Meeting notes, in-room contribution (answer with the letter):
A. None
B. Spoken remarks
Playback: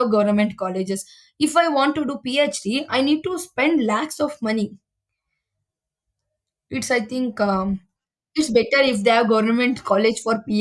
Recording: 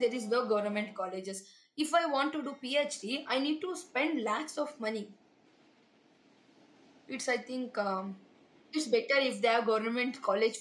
A